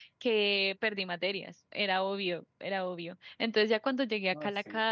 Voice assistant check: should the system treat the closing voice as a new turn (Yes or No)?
No